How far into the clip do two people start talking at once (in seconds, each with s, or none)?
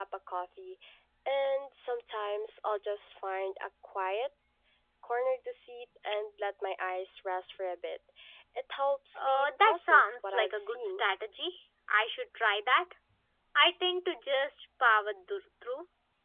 9.2 s